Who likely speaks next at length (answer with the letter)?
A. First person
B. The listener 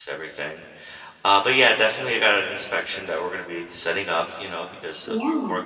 A